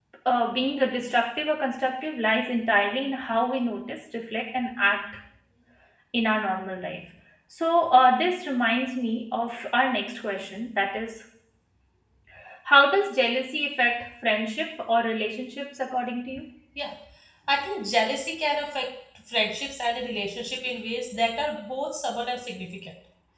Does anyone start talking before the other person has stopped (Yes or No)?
No